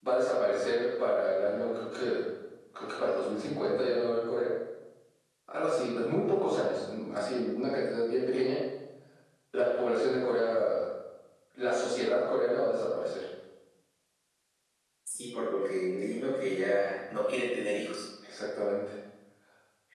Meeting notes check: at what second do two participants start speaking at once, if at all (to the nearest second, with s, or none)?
none